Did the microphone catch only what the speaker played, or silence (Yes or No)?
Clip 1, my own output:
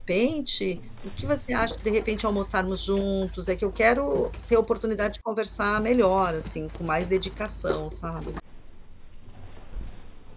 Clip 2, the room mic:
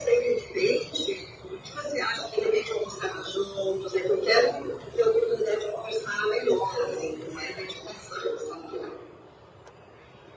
Yes